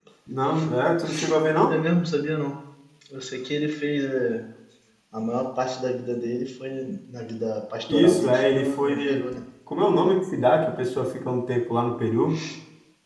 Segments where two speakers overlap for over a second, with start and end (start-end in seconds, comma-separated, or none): 7.9-9.2